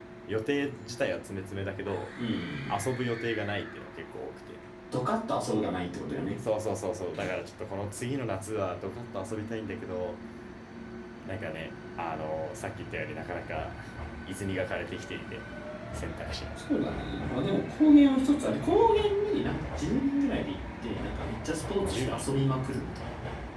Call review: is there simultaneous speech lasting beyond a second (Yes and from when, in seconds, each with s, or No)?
No